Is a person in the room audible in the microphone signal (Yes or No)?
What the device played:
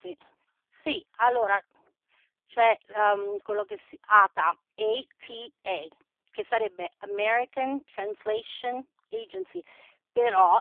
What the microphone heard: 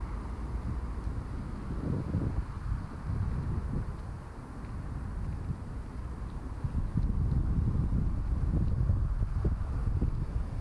No